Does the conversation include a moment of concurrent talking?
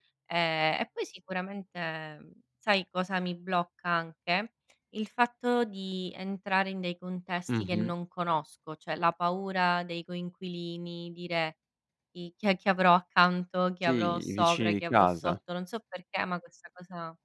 Yes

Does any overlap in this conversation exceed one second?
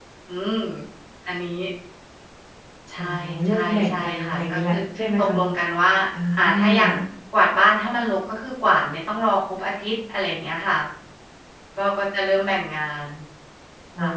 Yes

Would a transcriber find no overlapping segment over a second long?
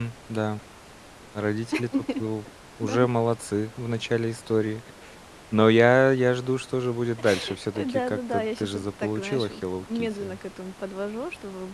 No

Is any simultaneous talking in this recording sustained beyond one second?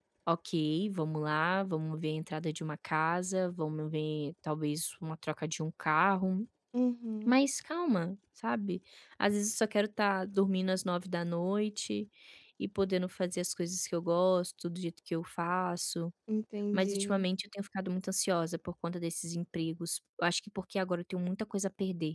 No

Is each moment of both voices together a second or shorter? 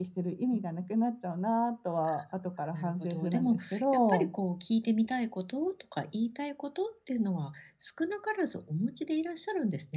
No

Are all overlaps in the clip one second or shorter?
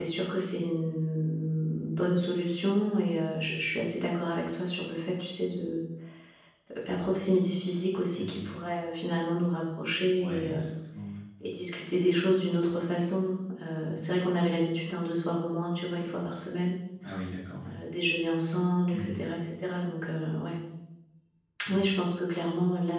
Yes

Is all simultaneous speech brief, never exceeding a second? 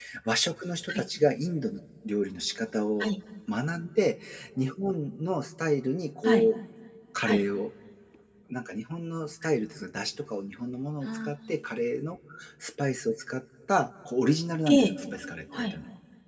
Yes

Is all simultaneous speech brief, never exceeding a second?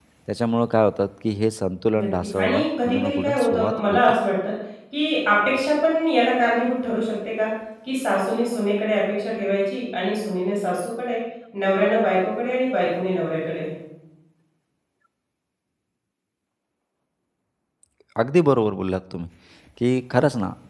No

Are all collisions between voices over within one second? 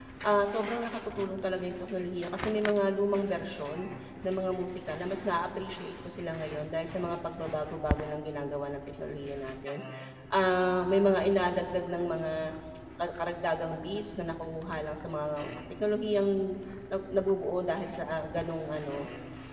Yes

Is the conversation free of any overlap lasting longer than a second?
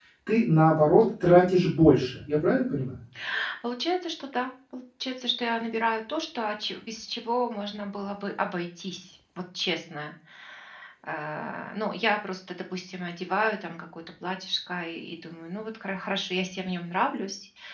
Yes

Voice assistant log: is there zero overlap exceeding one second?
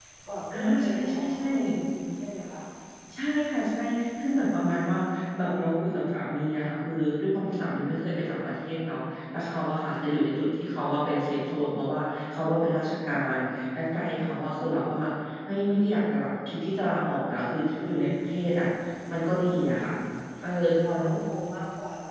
No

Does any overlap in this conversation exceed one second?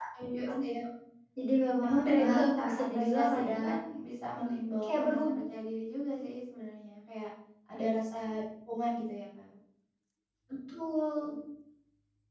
Yes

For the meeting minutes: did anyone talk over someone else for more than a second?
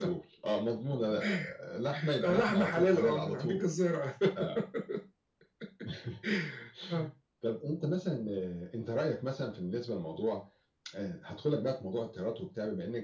Yes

